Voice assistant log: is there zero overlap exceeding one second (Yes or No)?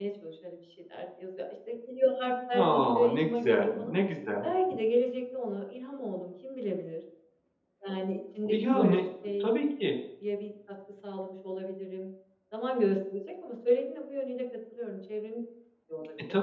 No